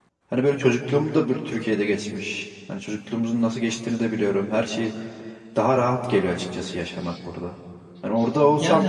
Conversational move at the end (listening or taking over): listening